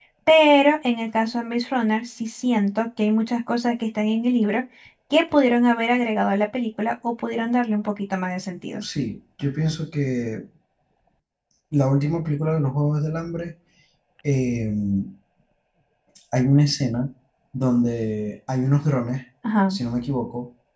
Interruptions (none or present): none